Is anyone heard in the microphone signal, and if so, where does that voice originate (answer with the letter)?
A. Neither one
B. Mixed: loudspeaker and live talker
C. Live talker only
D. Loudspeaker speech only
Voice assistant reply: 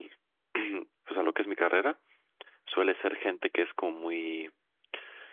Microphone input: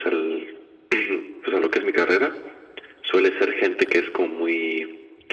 D